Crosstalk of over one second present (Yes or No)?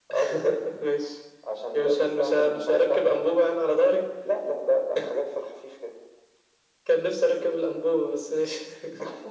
Yes